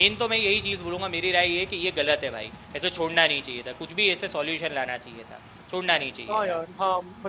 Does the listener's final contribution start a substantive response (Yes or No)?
Yes